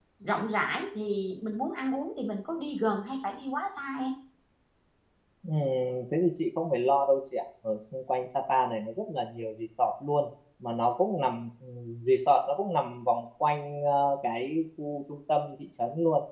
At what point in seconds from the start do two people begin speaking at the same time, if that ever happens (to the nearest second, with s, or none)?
none